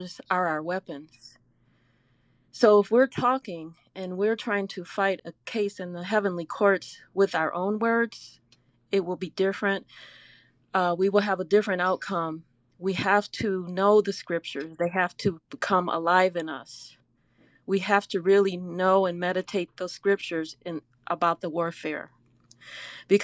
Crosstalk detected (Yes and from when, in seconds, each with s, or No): No